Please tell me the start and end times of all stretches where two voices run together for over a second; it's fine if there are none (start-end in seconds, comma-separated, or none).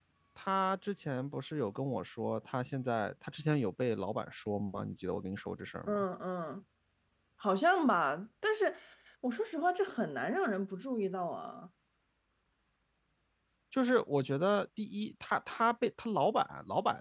none